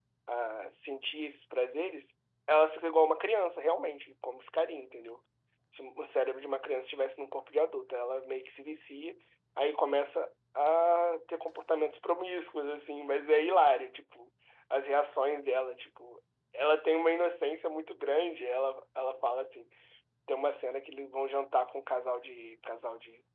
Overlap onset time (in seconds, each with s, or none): none